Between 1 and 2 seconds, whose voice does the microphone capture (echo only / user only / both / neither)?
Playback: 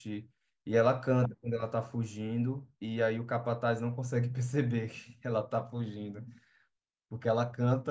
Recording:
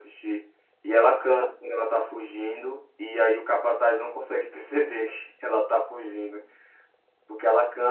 echo only